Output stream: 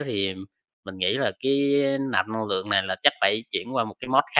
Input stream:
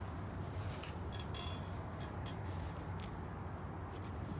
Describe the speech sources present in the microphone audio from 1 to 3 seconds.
neither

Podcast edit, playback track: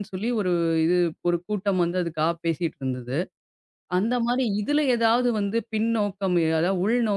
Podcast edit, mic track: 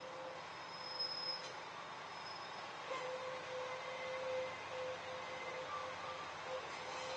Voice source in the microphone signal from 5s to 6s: neither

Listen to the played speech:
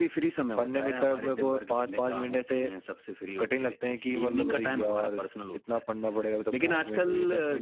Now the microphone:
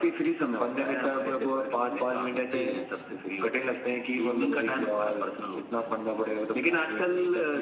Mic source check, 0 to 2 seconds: echo only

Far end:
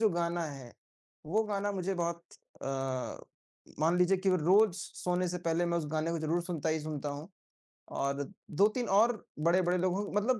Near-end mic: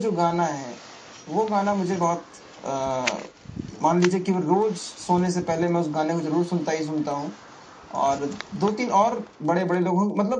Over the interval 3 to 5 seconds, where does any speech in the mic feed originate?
echo only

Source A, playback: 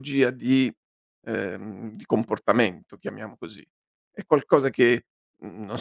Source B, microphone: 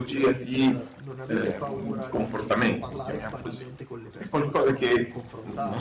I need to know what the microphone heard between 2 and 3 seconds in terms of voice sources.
both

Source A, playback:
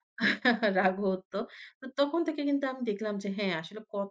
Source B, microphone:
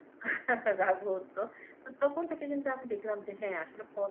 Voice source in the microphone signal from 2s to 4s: echo only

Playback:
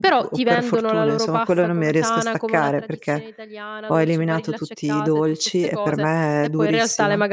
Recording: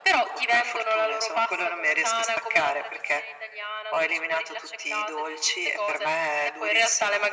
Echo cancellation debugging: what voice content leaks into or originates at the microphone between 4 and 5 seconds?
echo only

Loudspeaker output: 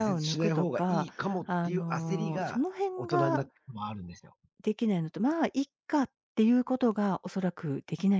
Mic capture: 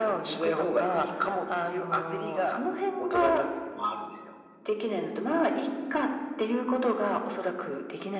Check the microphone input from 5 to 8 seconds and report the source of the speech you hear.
echo only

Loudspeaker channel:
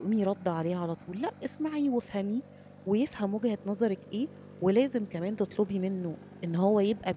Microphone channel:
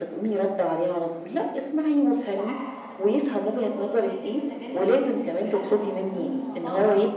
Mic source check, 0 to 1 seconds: echo only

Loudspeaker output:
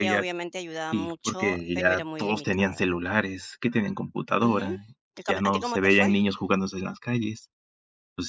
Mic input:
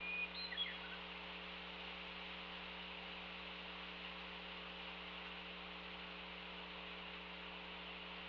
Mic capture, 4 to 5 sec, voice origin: neither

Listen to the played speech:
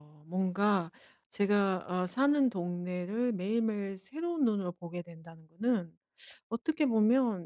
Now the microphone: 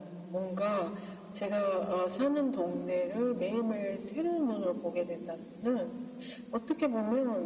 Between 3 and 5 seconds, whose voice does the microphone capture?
echo only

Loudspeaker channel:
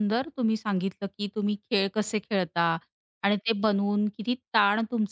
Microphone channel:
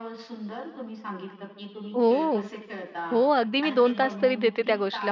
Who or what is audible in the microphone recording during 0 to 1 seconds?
echo only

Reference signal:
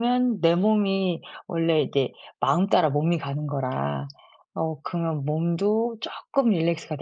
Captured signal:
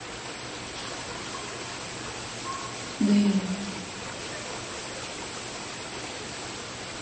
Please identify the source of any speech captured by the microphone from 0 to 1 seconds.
neither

